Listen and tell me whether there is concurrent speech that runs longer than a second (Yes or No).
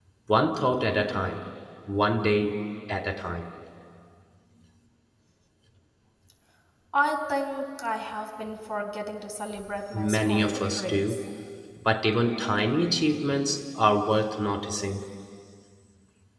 Yes